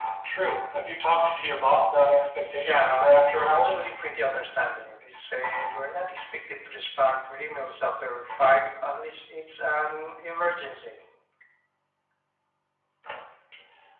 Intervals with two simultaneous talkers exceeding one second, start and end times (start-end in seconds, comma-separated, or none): 2.6-3.9